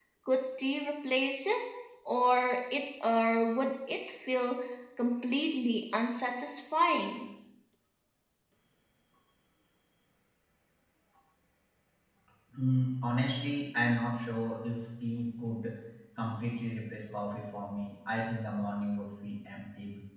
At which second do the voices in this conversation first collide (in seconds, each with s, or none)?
none